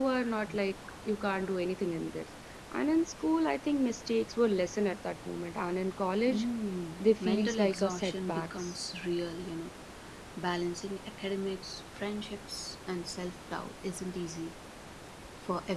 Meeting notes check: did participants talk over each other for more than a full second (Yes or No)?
Yes